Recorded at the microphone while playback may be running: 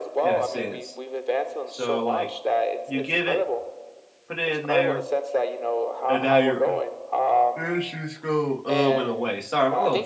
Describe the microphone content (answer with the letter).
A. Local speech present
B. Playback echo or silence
A